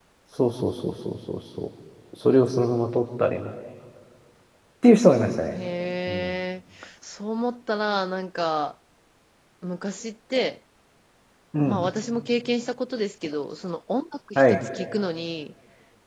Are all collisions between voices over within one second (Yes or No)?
Yes